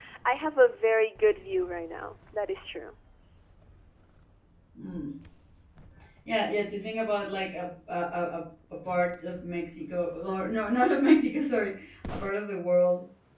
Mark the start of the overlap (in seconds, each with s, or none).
none